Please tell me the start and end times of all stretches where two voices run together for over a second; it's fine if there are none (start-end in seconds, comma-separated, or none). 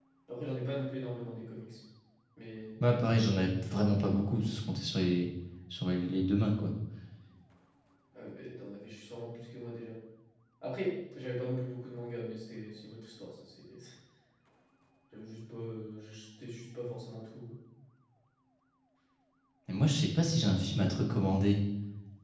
none